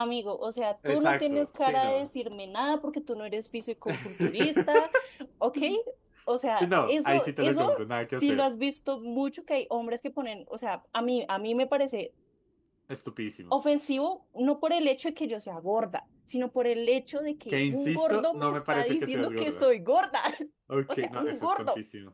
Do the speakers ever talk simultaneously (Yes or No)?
Yes